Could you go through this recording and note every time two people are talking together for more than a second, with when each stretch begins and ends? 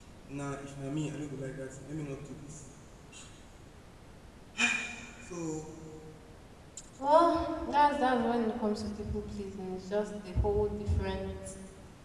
none

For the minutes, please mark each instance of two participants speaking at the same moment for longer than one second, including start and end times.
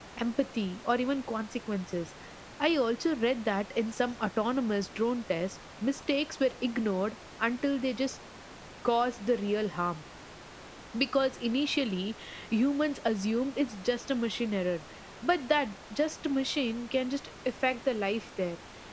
none

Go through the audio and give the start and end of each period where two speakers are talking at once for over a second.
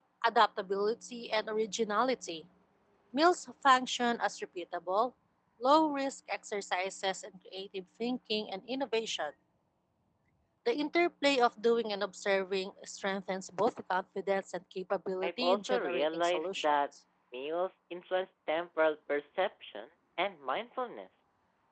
15.2-16.8

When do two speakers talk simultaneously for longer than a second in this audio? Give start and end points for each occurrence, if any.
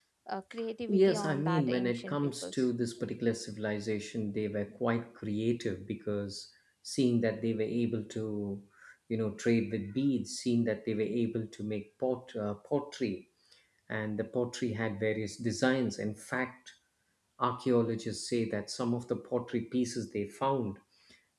0.9-2.6

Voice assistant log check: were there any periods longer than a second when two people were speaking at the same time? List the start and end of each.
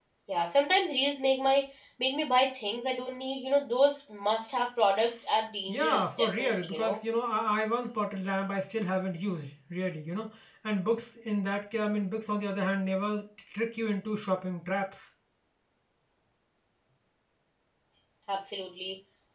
5.7-7.0

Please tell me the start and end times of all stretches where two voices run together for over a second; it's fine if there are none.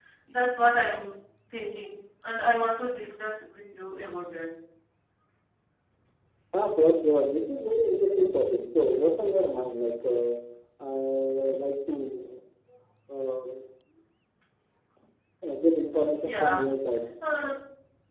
none

